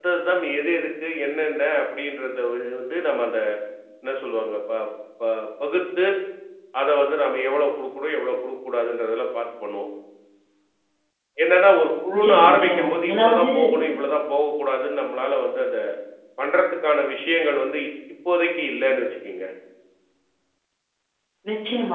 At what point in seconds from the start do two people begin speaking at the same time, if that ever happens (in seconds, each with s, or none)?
12.1 s